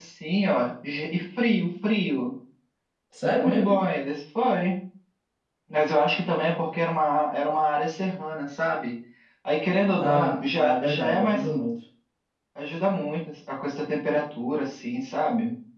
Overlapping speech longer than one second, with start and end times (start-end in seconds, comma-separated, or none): 10.0-11.4